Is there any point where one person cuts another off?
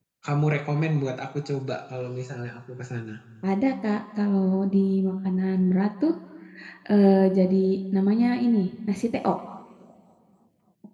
No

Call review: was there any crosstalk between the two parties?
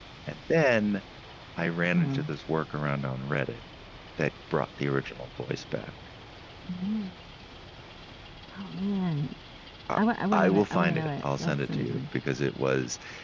Yes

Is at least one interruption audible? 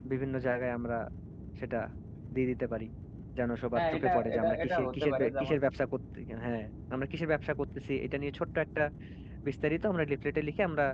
Yes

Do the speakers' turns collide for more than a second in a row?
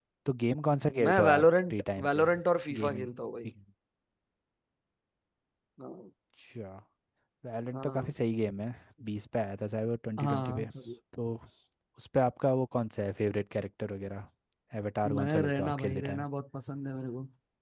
Yes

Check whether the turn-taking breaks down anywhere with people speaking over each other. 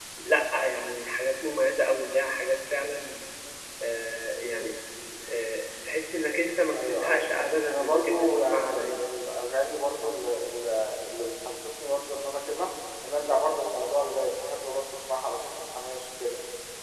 Yes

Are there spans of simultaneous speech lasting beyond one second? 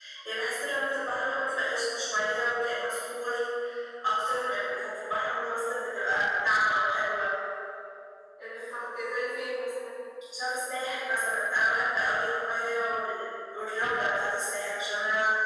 No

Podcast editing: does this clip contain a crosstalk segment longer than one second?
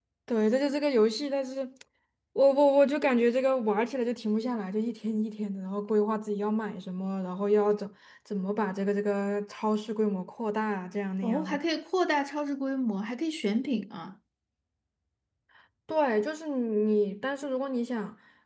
No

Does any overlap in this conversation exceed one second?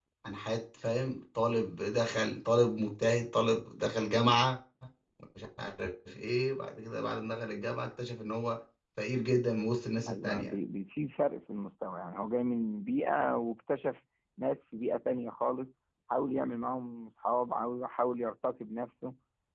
No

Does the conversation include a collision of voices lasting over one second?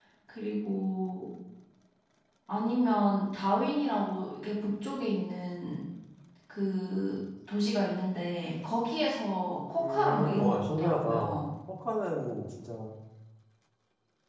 Yes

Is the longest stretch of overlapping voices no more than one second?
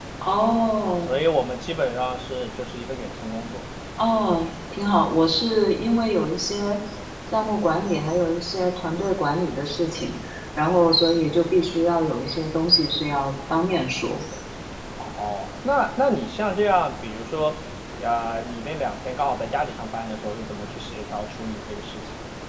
Yes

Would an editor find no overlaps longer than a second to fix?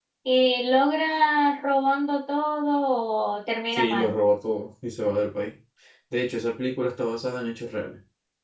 Yes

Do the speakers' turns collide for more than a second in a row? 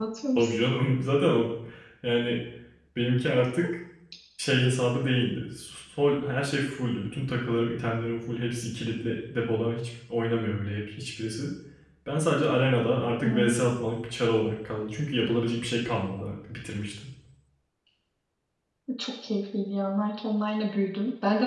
No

